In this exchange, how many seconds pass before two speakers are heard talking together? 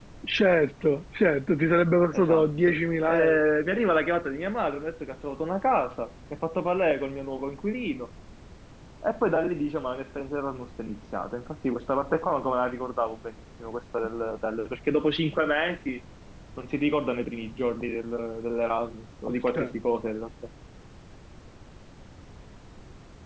2.1 s

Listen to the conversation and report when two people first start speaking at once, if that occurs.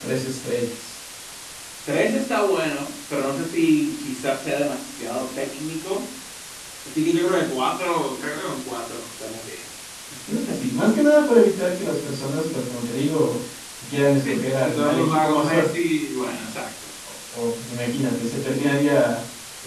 14.2 s

